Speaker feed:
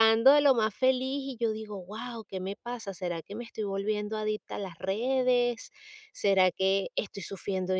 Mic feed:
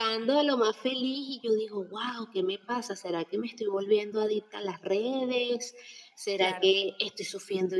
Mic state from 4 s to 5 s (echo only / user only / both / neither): echo only